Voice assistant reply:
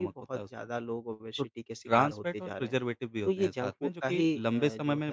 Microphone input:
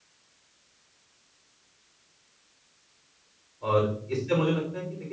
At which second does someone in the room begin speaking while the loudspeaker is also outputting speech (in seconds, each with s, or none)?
3.7 s